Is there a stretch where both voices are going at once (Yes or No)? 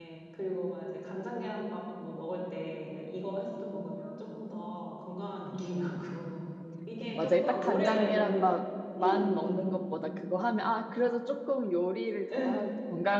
Yes